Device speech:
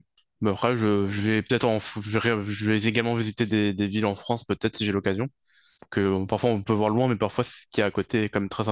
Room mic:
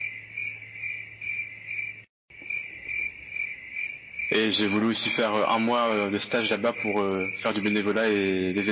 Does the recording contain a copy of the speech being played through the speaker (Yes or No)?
No